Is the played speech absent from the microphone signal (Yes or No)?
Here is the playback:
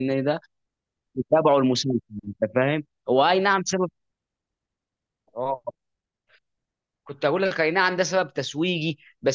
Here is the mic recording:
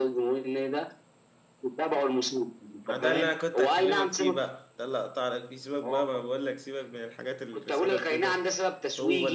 No